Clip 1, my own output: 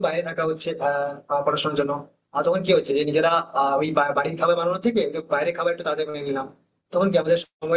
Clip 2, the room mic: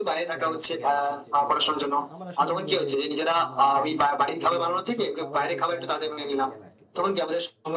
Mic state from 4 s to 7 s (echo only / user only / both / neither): both